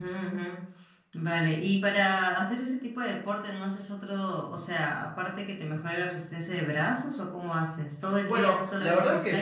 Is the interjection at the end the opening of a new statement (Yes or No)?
Yes